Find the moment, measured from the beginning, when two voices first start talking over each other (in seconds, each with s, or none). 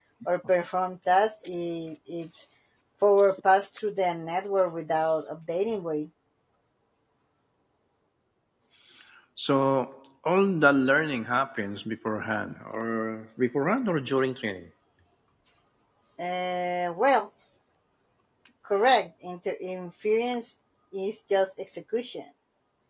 none